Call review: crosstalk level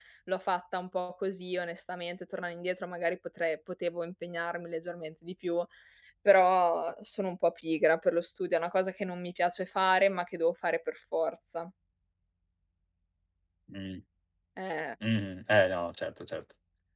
none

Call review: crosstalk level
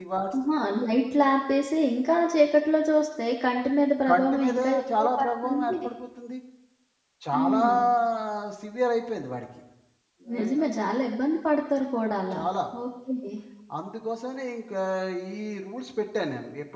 present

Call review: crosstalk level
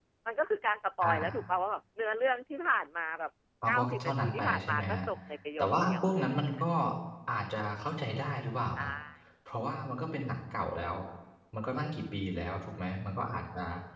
present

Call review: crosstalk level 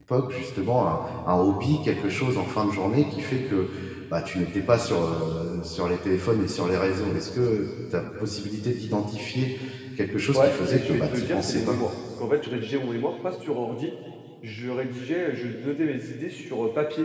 present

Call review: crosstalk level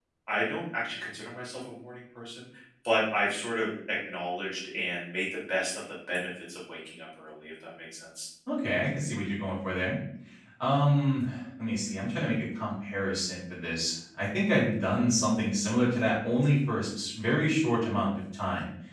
none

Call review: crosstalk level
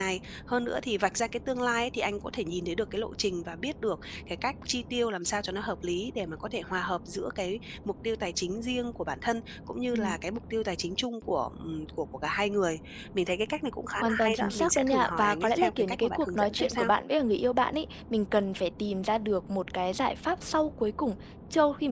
present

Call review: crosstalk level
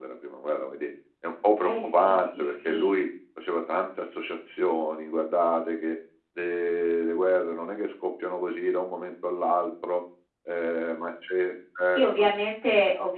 present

